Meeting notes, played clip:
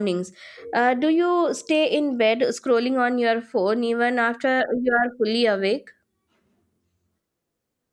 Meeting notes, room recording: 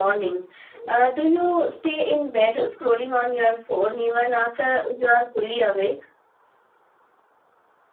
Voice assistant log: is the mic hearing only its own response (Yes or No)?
Yes